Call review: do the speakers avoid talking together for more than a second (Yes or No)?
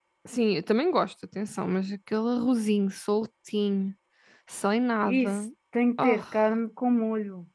Yes